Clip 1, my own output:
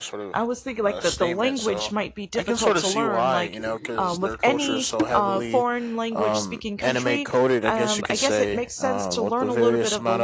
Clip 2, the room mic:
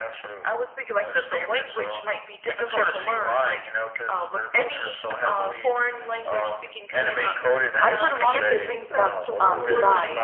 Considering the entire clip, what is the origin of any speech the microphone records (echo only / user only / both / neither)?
both